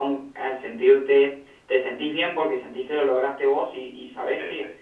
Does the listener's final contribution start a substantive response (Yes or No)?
No